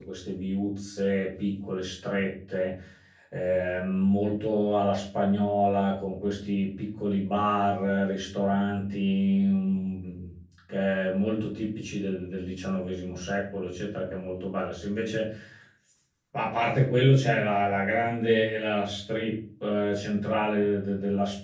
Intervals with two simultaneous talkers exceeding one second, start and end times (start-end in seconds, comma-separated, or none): none